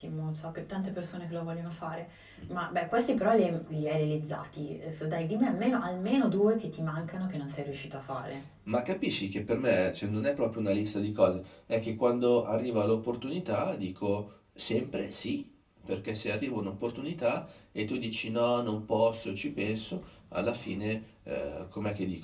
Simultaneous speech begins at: none

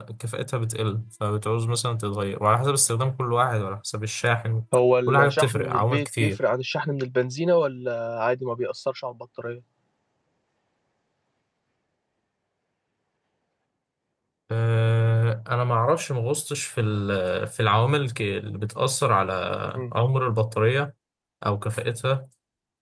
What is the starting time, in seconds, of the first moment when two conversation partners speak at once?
5.1 s

